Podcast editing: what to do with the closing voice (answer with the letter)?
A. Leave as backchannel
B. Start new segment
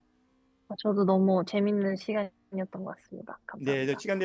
B